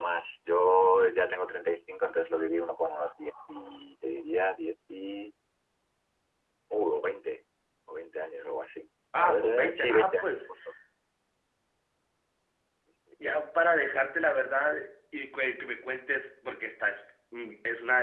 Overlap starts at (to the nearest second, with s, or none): 9 s